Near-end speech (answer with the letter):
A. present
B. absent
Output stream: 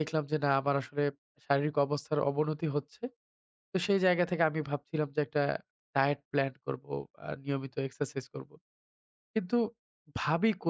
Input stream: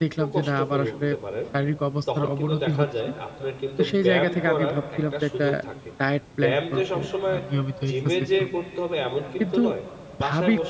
A